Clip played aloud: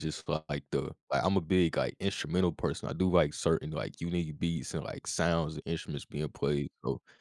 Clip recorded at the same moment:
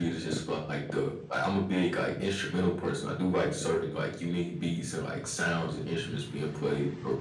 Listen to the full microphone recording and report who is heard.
echo only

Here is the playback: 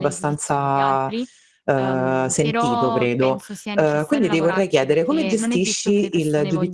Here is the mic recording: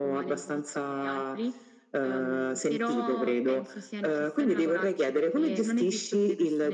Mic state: echo only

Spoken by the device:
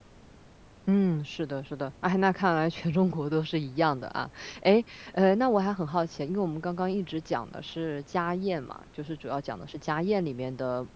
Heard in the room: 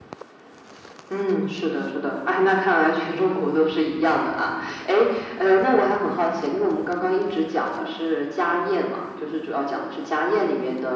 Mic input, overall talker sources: echo only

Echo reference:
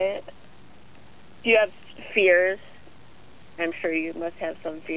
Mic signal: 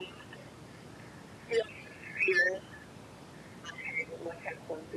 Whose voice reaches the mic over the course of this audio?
echo only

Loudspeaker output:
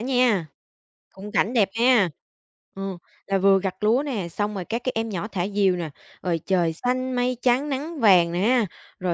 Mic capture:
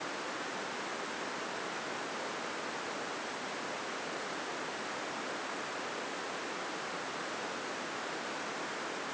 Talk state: neither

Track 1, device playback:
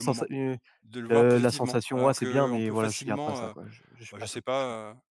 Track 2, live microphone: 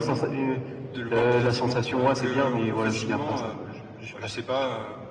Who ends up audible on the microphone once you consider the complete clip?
echo only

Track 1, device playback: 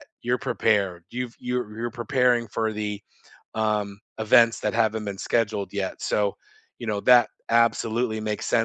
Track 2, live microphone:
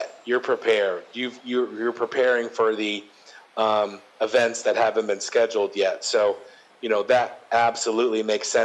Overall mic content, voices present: echo only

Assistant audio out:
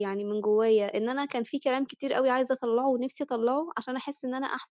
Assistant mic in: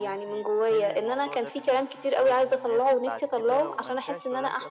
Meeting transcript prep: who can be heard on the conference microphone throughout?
both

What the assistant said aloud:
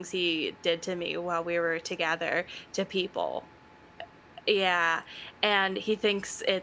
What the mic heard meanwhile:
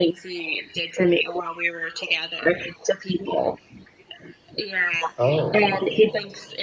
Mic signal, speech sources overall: both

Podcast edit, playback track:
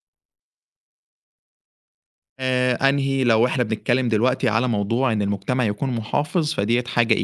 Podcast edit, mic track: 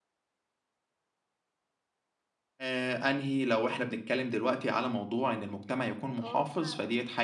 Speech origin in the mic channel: both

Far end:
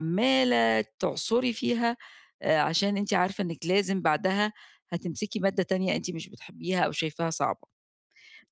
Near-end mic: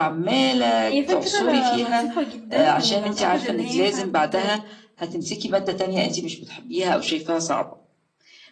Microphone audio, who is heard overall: both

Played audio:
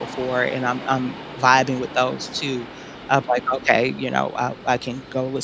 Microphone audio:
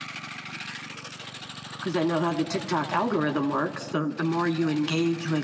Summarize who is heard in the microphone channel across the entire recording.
user only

